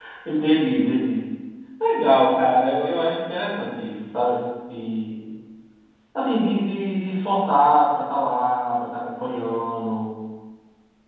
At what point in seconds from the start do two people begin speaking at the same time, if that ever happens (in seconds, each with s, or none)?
none